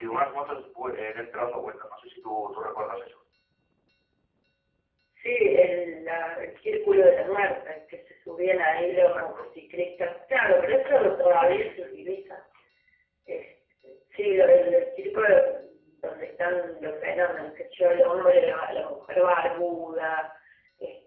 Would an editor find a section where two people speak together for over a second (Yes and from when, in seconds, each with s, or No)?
No